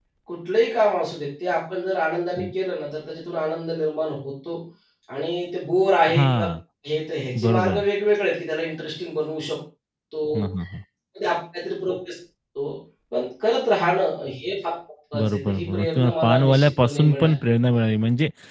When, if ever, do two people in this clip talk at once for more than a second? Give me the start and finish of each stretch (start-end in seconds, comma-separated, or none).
15.2-17.4